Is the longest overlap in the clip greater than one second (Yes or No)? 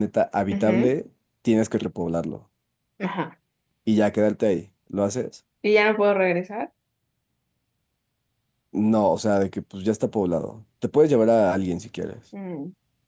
No